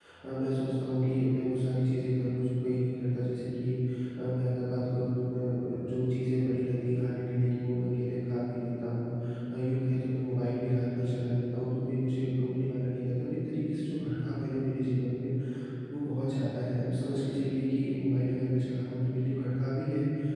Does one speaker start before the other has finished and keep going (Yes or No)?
No